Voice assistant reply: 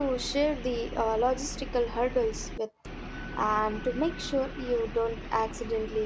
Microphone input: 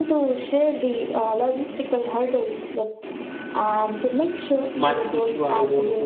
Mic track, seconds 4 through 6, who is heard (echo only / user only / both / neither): both